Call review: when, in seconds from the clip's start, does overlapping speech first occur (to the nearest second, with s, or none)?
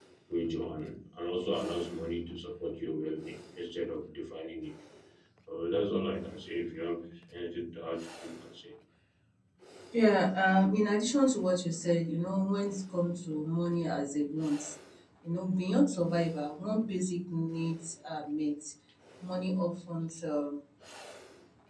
none